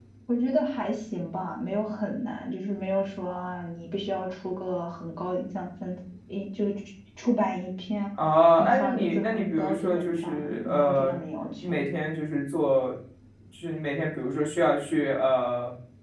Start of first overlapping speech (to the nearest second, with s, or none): 9 s